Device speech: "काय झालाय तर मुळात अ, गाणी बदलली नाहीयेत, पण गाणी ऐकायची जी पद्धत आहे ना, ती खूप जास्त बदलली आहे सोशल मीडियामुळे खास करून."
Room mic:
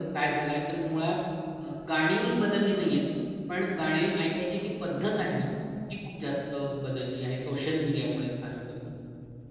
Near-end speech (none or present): none